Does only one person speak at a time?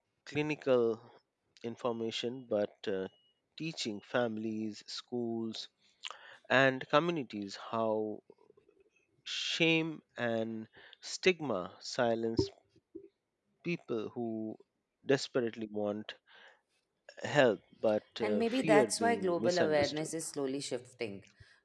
No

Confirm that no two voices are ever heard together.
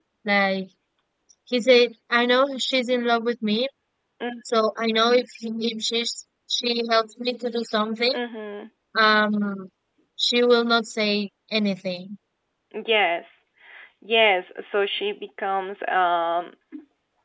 Yes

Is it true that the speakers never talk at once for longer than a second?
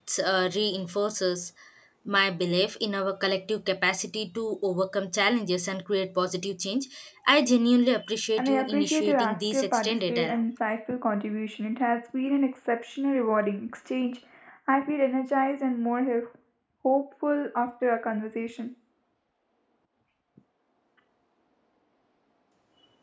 No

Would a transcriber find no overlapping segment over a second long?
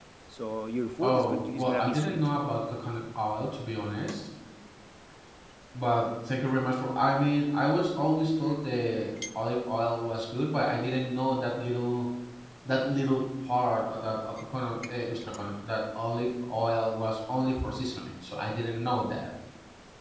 No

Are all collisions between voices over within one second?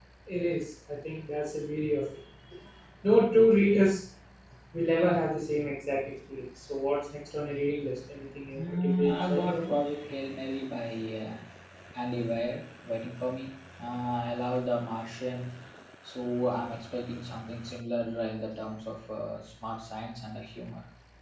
No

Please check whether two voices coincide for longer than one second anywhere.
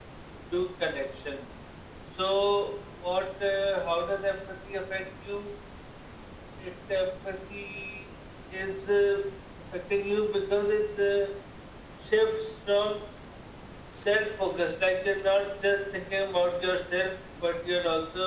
No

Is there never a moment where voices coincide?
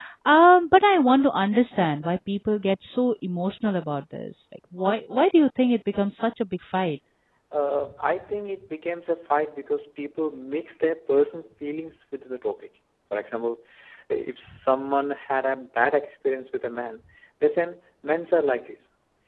Yes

